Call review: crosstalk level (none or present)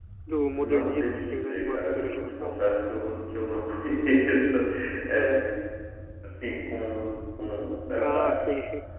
present